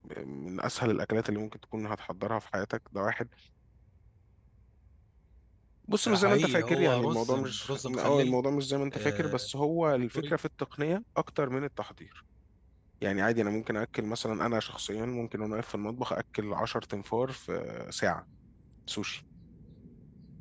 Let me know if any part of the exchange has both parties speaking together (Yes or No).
Yes